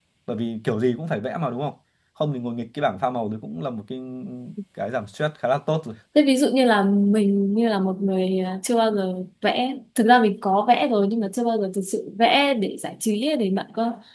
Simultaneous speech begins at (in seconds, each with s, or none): none